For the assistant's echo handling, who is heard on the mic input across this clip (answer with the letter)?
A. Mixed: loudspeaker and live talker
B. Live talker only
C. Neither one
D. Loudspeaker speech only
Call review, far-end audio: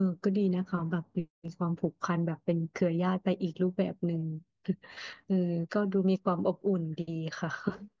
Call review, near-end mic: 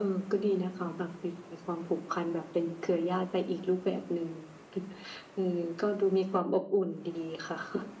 D